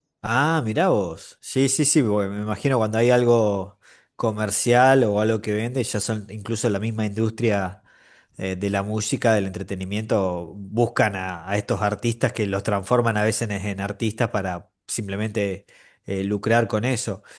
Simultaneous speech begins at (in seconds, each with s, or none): none